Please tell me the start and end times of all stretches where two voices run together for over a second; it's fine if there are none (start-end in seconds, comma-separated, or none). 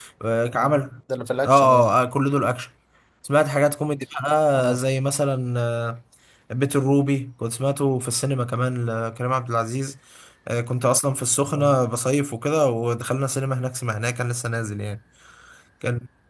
none